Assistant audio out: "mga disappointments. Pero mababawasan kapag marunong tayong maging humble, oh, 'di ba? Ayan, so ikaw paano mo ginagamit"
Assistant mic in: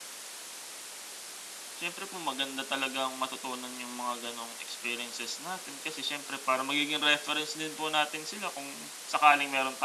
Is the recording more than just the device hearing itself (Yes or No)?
Yes